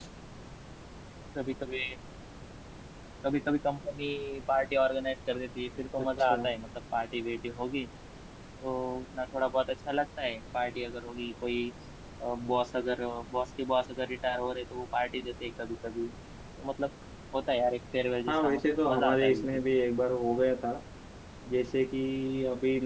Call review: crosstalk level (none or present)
present